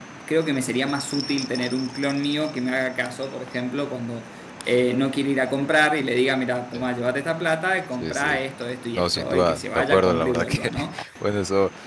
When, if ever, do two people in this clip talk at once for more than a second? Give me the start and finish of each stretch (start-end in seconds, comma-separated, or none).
9.0-10.7